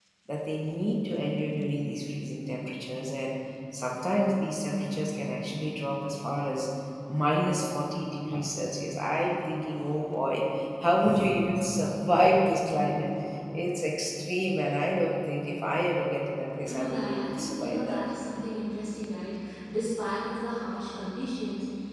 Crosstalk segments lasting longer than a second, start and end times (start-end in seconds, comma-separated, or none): 16.6-18.0